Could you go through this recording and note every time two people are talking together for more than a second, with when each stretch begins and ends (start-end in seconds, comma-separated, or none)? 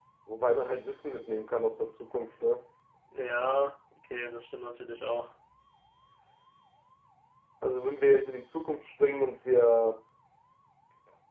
none